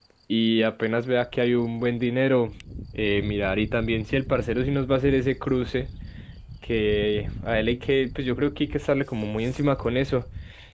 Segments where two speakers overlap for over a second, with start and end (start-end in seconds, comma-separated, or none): none